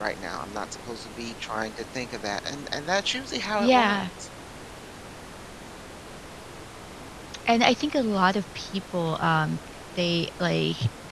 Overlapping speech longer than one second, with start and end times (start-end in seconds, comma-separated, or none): none